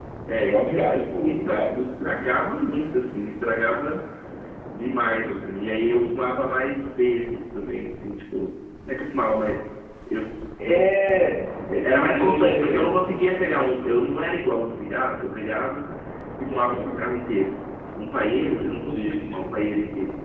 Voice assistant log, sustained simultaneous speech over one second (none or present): present